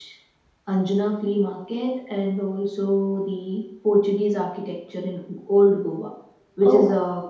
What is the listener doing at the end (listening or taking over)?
listening